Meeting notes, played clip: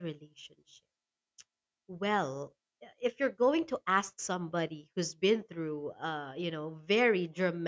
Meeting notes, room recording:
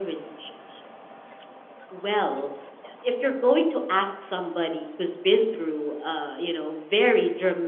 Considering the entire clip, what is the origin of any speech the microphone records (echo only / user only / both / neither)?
echo only